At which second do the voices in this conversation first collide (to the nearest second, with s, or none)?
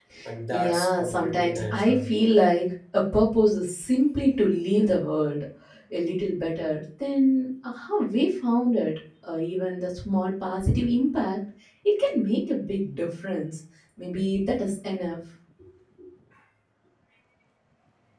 1 s